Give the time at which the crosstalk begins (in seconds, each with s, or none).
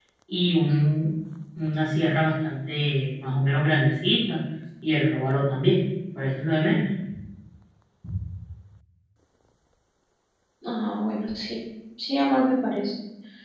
none